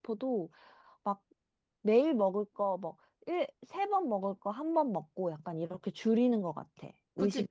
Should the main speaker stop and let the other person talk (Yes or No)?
Yes